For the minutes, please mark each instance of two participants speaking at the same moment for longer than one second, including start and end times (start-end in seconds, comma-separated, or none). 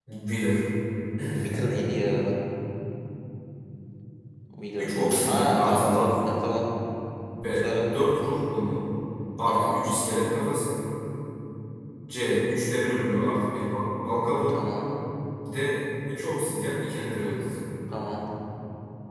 4.8-6.1